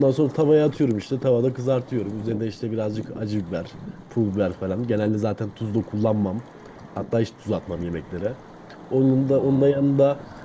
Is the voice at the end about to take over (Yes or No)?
No